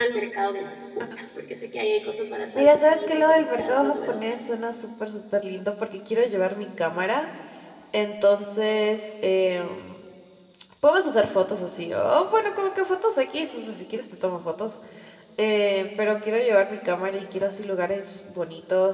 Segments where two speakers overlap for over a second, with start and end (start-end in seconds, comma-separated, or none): 2.6-4.4